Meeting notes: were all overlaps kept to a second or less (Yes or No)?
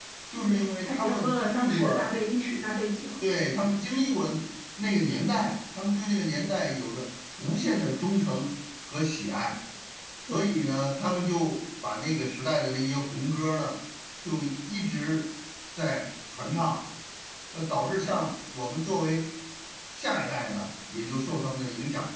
No